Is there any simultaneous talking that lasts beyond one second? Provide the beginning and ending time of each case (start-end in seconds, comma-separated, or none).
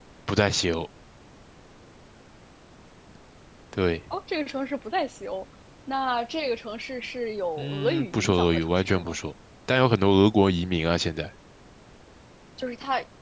7.6-9.2